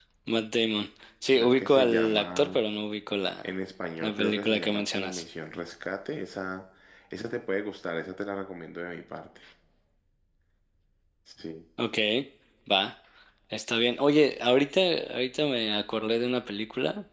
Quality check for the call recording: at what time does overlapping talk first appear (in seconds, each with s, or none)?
1.3 s